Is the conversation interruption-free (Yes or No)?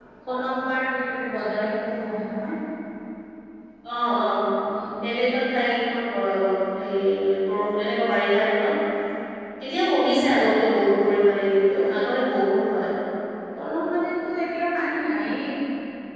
Yes